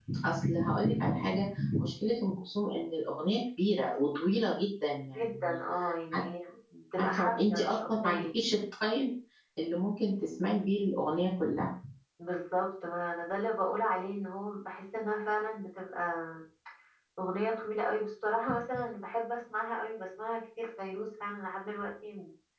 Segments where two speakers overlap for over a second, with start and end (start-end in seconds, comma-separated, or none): 7.0-8.2